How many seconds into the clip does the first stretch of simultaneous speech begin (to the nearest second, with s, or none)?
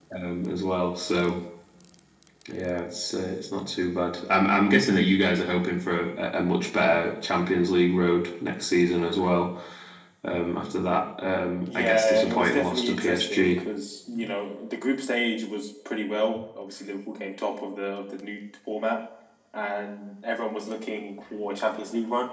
12 s